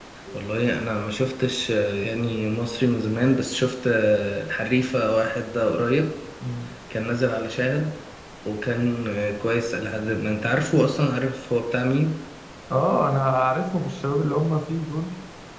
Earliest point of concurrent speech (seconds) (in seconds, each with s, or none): none